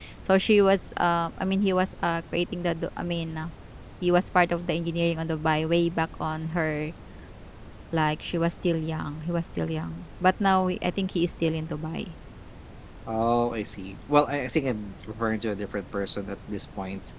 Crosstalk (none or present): none